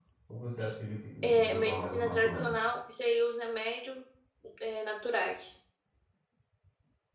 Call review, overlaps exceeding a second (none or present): present